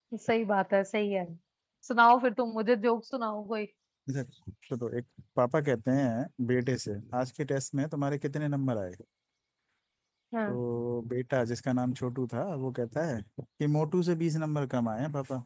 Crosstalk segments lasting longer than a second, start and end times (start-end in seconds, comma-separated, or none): none